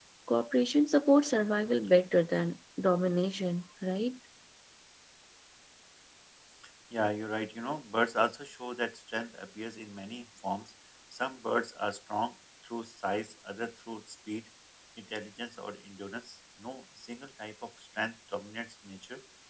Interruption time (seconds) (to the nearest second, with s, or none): none